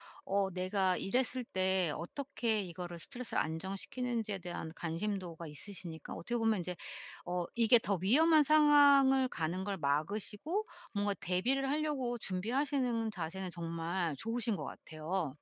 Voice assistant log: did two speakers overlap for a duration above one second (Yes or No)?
No